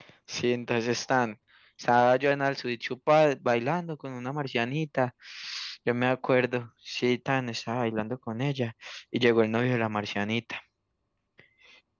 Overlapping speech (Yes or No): No